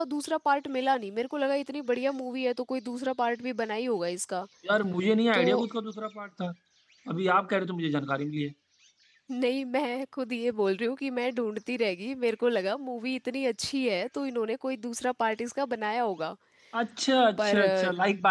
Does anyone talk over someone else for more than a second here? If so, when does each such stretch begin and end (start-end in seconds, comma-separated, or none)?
none